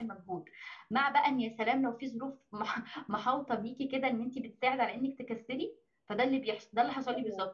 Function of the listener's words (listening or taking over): listening